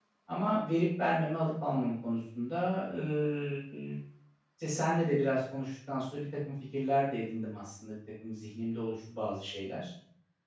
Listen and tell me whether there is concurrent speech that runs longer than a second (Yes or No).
No